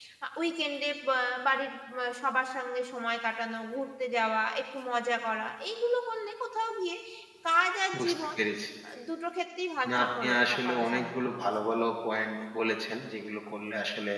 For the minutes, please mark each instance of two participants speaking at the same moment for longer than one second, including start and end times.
9.9-11.1

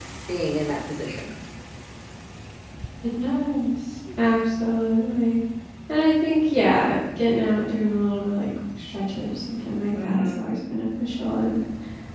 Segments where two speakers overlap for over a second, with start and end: none

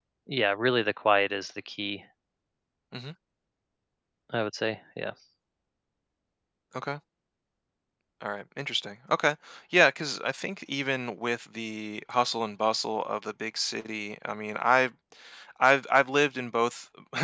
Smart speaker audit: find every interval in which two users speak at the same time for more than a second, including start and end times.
none

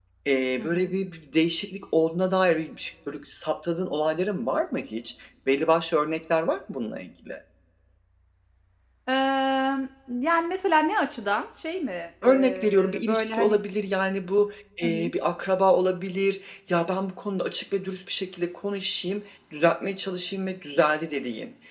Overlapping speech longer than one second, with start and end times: 12.2-13.6

